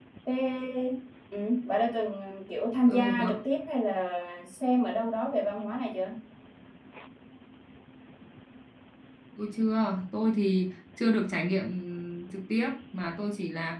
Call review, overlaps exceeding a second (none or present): none